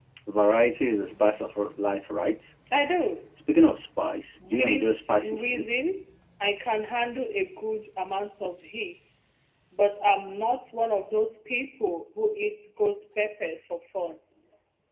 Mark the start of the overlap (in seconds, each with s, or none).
4.4 s